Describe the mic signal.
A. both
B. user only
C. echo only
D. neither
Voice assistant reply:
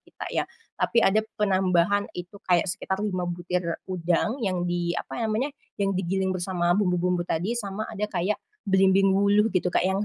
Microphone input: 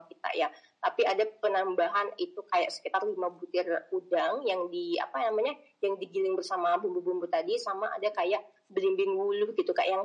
C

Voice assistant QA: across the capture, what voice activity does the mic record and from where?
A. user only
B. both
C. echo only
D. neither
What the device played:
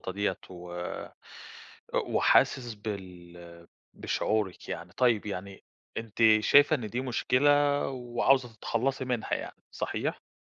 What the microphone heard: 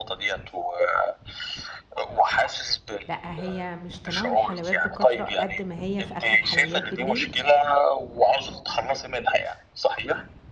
B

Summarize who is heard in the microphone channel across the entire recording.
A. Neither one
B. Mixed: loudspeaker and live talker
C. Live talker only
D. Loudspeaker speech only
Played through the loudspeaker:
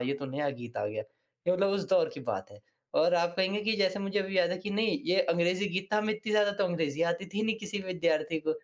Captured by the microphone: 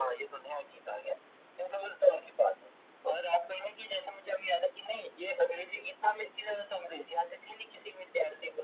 D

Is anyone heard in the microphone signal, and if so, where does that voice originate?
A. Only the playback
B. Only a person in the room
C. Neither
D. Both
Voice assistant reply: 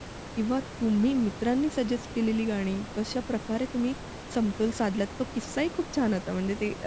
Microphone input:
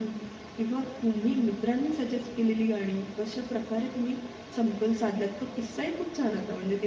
A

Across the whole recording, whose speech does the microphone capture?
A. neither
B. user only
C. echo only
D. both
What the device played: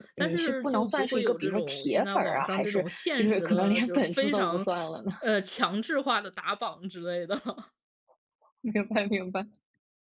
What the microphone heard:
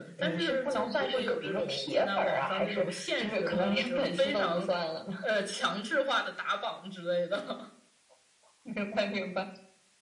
C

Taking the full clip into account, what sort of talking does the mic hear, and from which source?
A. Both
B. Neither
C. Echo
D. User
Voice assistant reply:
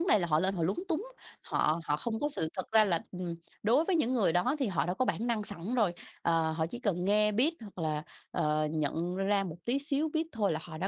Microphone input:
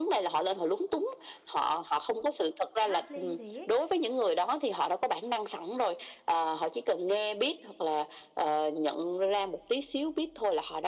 A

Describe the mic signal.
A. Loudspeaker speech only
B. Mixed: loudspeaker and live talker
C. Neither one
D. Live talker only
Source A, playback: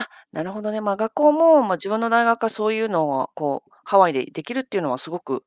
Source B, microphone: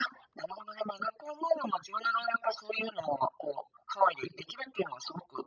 A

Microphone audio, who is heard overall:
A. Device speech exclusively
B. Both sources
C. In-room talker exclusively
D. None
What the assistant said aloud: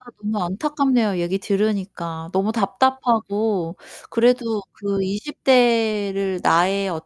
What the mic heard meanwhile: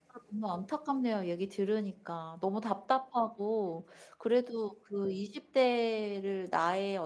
A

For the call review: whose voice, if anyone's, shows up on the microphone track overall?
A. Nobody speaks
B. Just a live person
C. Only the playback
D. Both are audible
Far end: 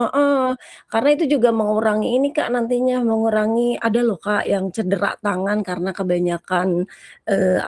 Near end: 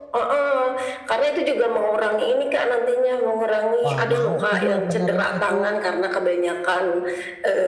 D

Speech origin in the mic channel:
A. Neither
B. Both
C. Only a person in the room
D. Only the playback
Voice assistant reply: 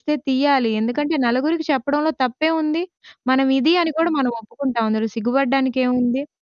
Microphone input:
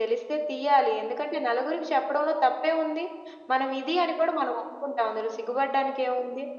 D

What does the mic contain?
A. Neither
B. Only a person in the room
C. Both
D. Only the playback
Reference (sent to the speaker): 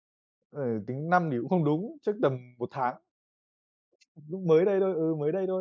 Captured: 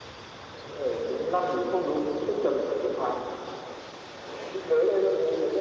D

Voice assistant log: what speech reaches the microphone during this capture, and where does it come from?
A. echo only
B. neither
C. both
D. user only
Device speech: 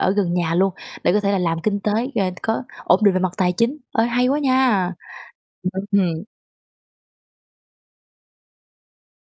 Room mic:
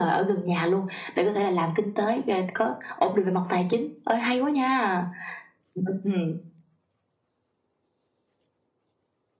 A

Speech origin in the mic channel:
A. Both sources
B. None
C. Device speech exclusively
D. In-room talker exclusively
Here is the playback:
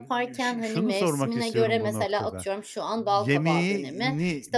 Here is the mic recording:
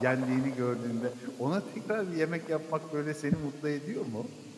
D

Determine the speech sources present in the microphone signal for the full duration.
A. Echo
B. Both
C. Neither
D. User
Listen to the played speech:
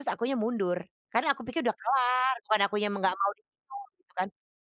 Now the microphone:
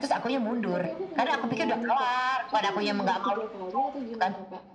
B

